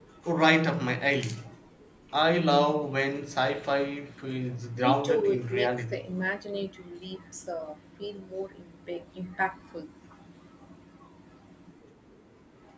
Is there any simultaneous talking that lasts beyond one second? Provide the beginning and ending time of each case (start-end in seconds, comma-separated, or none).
4.8-6.0